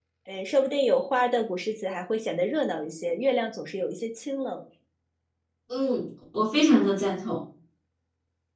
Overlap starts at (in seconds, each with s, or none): none